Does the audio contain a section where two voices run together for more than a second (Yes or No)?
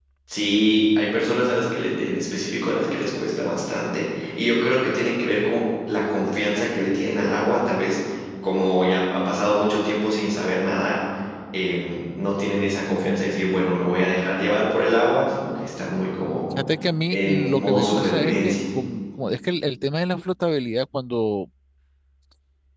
Yes